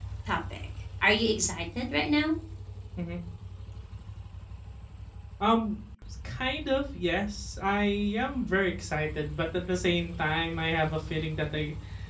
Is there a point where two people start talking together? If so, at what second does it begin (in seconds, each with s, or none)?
none